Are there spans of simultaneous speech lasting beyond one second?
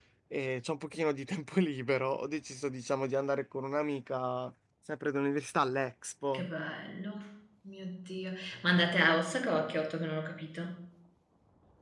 No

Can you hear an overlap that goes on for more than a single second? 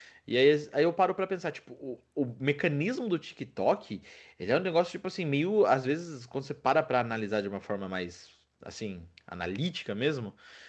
No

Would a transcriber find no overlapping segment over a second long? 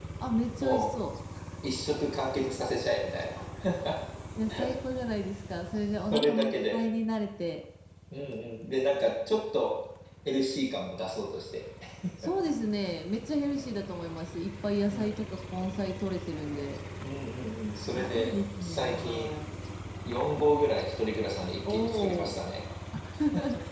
No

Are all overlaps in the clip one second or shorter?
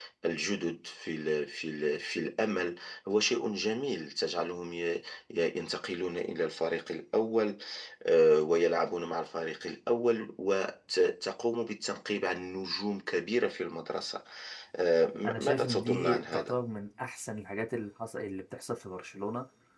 No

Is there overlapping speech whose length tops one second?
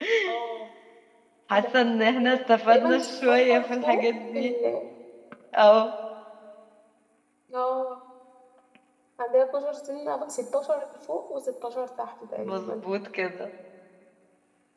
Yes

